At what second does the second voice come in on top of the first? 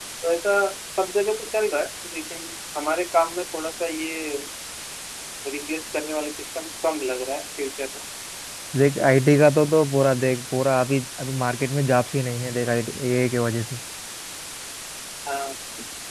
none

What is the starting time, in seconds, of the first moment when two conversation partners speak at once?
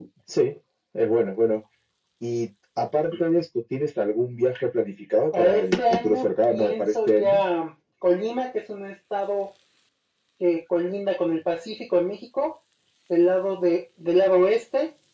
5.3 s

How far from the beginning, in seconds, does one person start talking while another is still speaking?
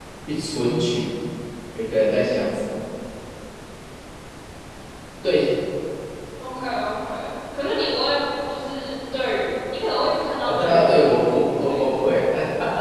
10.5 s

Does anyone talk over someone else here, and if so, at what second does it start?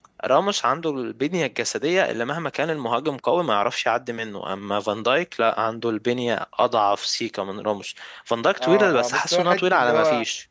8.5 s

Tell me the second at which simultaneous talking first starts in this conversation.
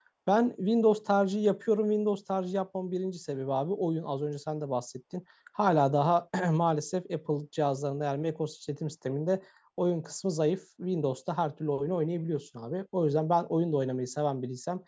none

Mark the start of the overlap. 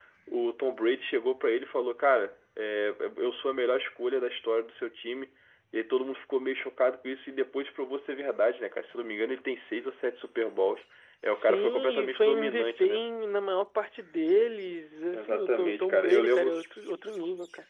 11.3 s

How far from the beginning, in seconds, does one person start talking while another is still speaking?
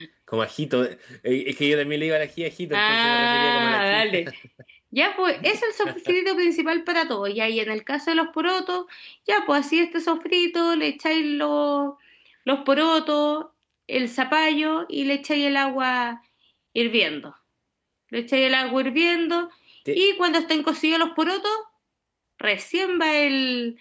2.7 s

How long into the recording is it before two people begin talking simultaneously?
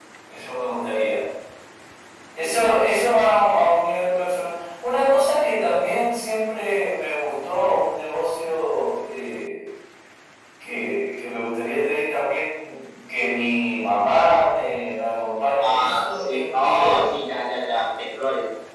15.6 s

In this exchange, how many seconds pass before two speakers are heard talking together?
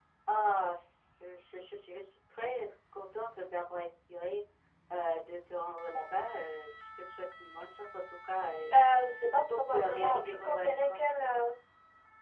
9.2 s

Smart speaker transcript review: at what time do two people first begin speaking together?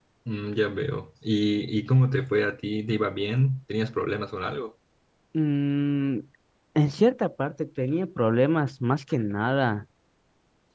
none

